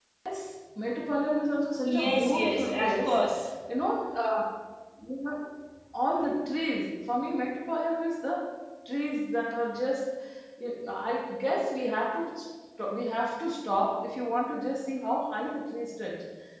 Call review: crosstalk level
present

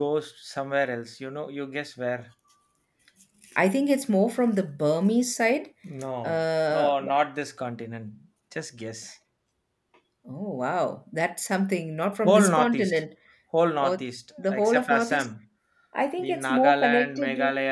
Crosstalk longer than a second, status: present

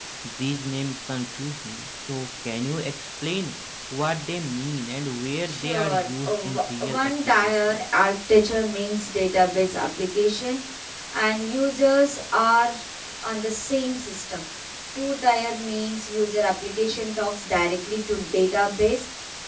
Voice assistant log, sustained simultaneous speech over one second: present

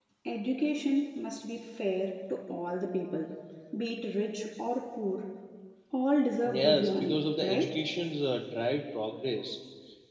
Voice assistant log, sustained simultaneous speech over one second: present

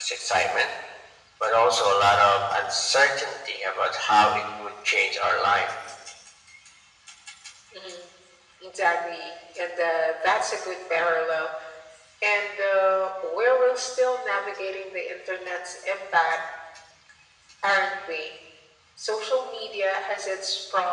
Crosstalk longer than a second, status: none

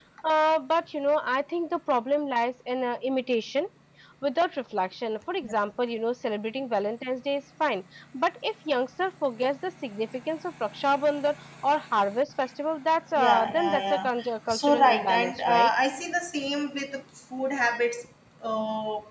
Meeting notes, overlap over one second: present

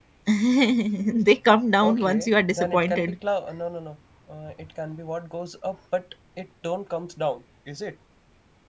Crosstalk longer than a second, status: present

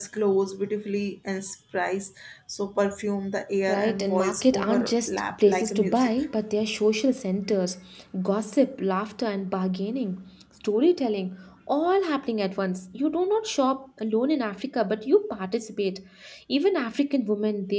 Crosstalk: present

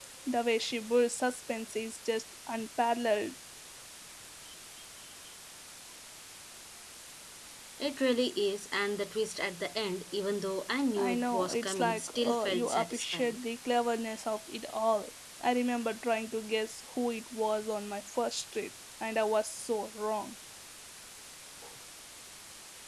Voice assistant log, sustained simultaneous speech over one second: present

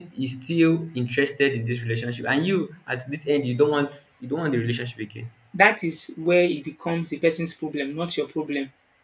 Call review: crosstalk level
none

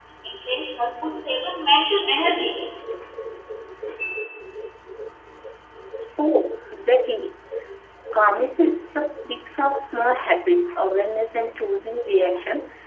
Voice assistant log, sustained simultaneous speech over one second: none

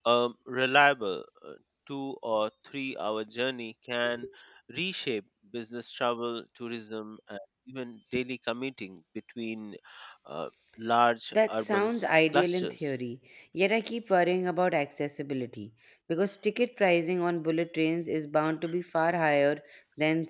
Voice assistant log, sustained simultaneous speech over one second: present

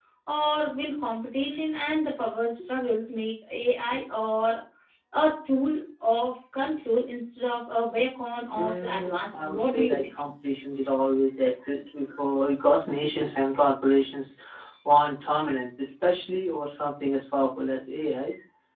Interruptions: present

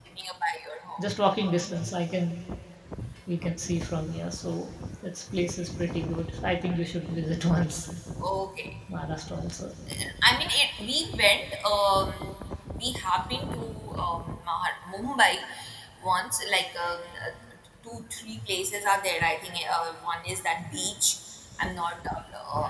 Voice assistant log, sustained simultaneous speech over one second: none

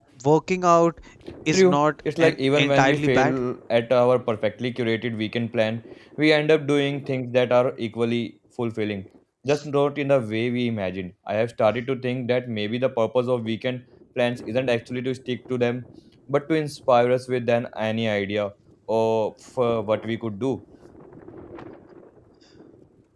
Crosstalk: present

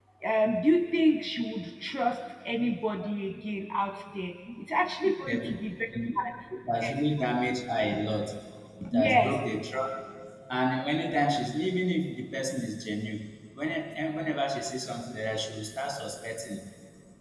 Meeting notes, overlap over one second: none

